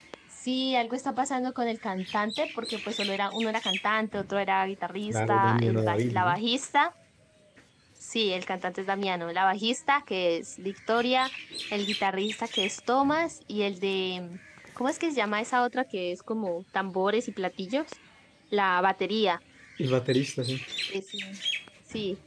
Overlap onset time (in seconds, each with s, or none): 5.1 s